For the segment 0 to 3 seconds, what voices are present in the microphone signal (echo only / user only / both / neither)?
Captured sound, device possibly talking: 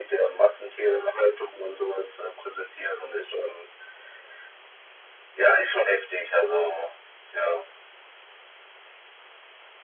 echo only